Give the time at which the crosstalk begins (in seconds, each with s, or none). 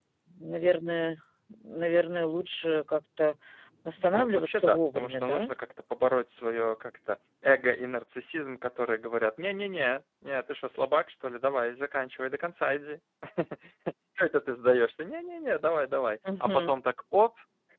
4.0 s